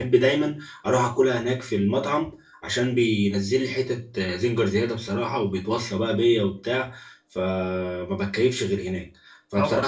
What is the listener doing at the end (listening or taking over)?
taking over